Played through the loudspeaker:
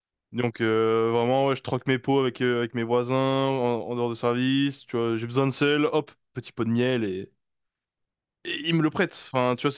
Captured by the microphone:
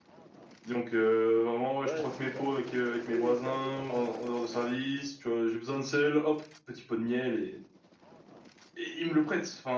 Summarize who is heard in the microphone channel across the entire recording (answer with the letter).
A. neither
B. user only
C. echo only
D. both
D